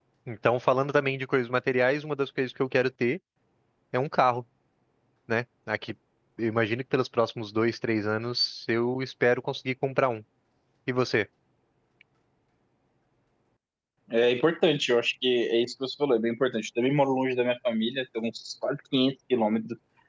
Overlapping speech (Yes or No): No